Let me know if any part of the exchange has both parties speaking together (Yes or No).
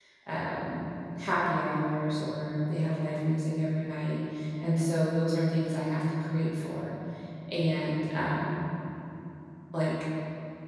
No